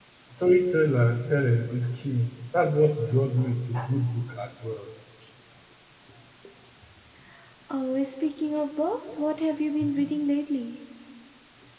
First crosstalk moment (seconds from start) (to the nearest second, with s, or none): none